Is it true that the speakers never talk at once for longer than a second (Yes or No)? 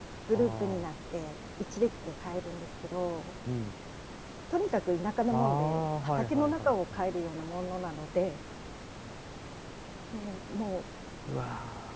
No